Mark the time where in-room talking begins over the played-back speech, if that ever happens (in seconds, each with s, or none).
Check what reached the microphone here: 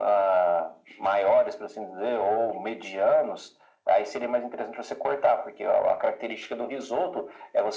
none